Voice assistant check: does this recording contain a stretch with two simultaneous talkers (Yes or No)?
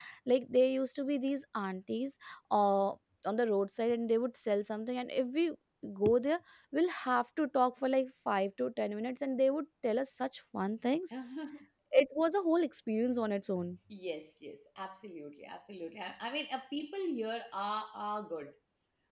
No